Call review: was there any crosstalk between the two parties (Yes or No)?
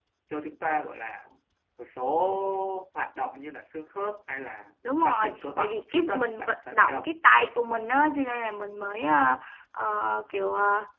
Yes